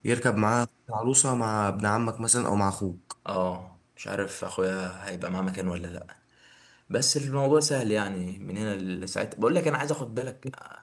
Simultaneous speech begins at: none

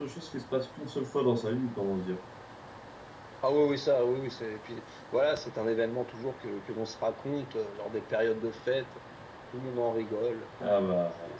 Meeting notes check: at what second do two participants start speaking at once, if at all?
none

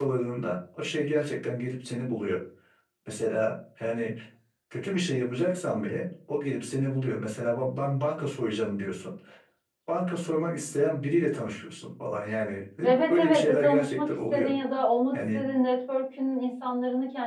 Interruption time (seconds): 13.1 s

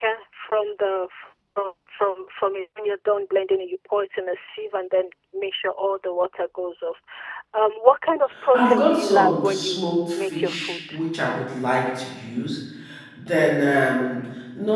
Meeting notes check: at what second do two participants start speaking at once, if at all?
8.5 s

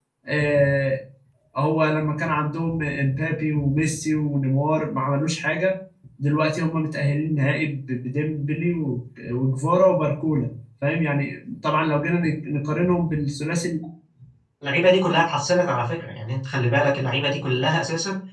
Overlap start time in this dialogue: none

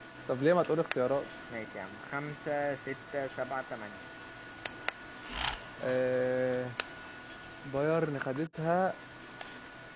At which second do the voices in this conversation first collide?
none

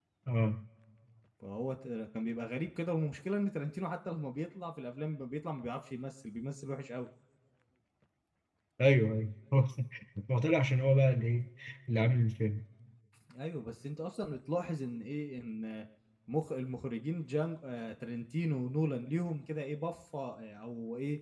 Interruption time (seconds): none

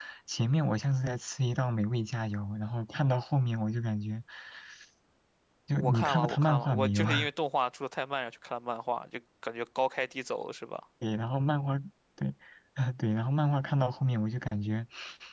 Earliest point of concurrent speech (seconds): 5.8 s

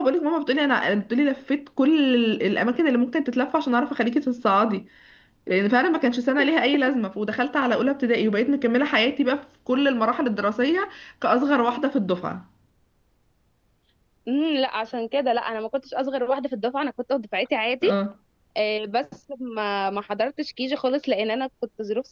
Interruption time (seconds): none

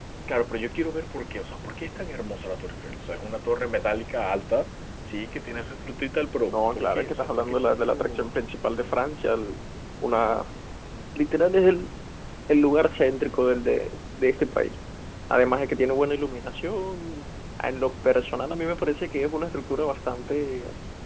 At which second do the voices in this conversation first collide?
6.4 s

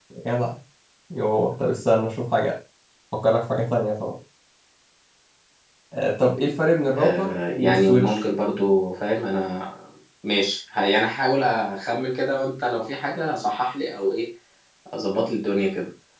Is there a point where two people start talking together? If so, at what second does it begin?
7.0 s

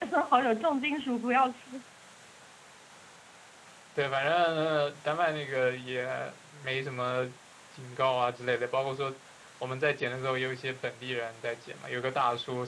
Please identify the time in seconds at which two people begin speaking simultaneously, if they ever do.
none

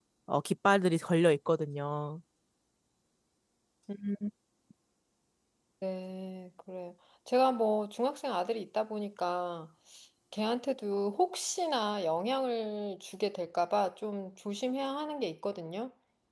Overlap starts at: none

